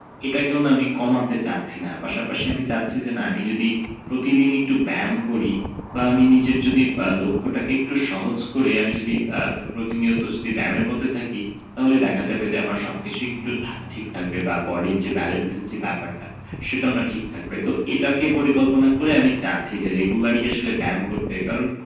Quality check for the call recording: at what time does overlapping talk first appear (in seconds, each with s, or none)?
none